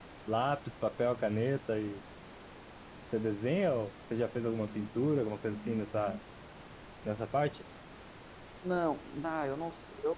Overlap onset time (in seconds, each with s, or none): none